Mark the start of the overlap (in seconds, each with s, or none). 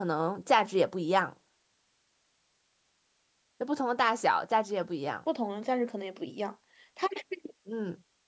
none